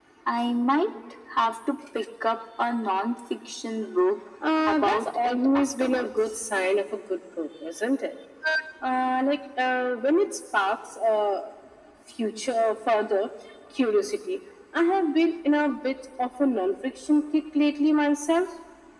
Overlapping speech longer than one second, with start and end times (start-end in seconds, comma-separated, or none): 4.7-6.3